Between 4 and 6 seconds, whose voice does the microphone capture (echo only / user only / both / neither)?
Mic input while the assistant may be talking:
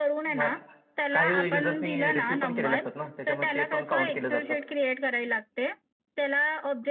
both